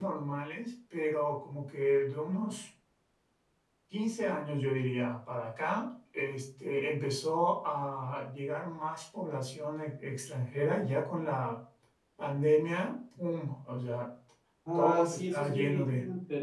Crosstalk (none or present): present